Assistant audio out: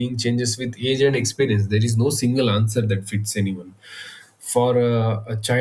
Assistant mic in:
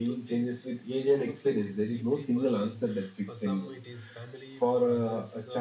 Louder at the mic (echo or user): echo